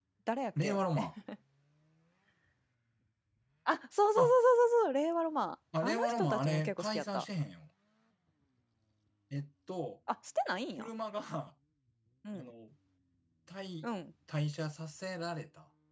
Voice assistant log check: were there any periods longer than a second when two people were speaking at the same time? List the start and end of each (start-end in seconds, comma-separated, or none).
5.8-7.2